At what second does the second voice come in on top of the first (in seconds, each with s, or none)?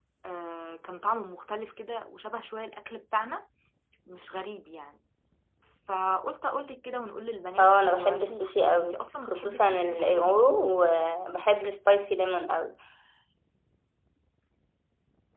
7.6 s